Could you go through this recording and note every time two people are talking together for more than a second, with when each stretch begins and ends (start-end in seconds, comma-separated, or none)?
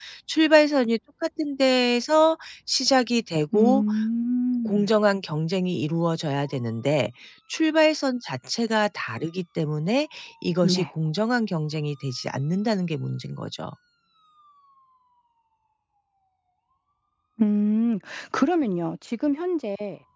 none